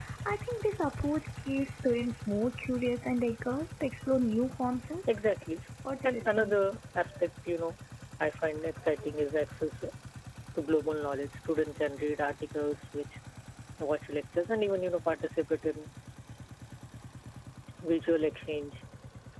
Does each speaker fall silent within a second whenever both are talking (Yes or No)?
Yes